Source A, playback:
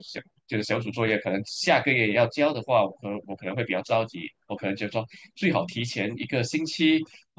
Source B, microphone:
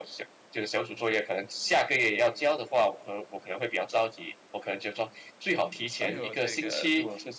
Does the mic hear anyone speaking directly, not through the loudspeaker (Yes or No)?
Yes